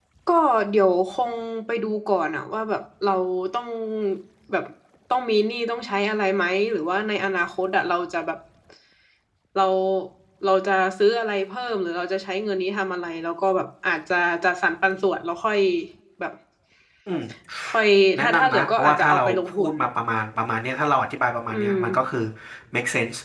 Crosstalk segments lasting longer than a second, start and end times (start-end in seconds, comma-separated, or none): 18.2-19.7